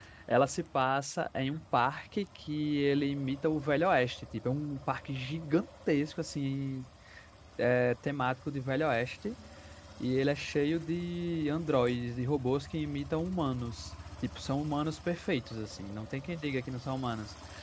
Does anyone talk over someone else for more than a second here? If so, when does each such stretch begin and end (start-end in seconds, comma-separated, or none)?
none